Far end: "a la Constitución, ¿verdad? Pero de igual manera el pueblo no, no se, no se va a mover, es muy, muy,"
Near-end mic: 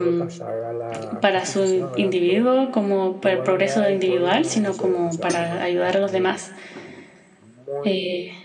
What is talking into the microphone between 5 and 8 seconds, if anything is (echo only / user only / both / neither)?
both